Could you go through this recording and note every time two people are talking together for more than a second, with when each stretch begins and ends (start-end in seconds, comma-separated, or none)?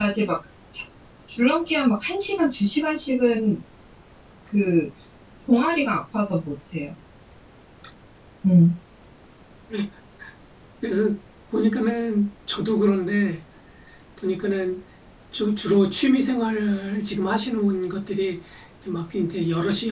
none